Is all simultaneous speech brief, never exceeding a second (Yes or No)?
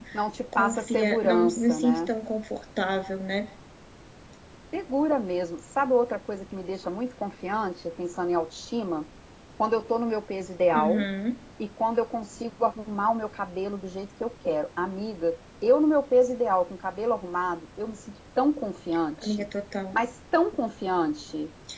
No